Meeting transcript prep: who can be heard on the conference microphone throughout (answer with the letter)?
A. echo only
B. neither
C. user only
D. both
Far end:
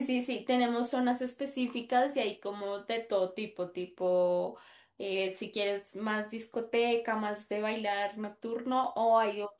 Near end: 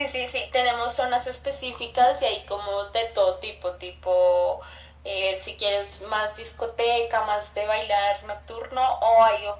A